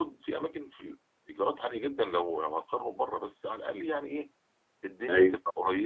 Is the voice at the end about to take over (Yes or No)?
No